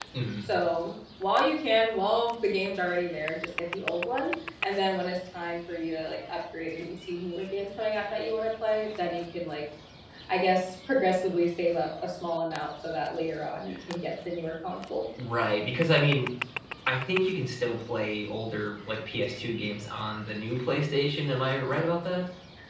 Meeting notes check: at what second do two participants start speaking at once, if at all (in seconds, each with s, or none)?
none